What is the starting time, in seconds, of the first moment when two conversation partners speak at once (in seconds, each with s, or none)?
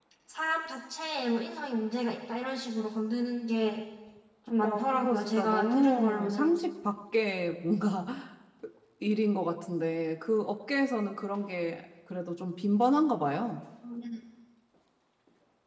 4.6 s